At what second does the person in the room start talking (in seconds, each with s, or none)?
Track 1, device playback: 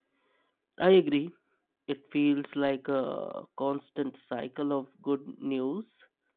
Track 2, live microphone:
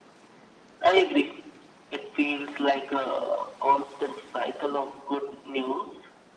none